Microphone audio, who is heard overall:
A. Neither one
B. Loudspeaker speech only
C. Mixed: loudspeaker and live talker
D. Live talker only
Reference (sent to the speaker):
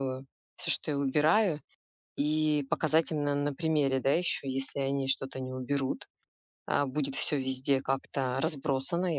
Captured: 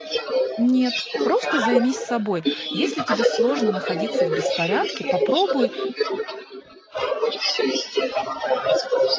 C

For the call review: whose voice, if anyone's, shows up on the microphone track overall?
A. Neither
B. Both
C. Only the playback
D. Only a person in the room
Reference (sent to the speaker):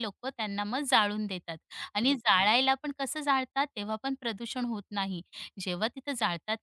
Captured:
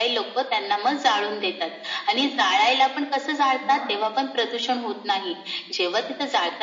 B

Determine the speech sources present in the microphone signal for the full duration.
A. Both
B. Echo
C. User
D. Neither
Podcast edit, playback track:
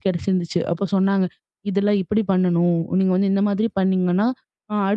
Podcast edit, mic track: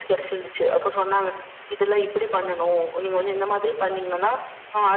B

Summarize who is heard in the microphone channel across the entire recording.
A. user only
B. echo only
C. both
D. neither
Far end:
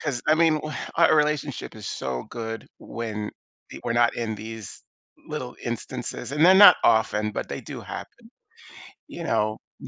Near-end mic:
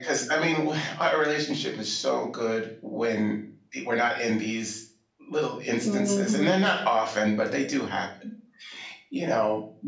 C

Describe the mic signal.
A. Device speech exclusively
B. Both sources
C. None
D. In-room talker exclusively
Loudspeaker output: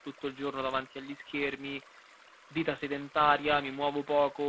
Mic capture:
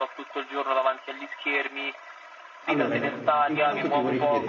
B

